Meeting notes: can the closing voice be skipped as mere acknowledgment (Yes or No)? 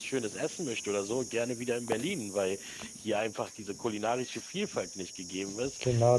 No